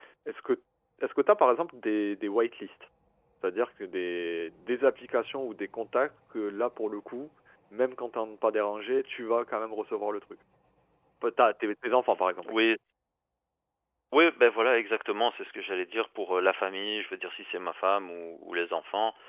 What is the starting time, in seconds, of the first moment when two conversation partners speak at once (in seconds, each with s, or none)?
none